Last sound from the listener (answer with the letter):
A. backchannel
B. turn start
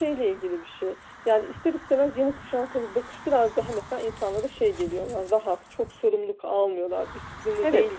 B